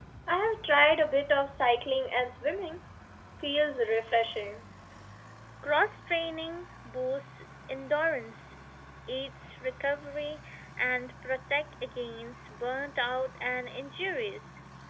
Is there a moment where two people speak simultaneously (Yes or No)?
No